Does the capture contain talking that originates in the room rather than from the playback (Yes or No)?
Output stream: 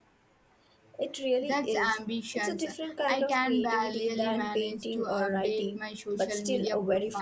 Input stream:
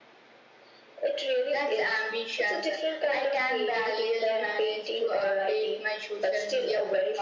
No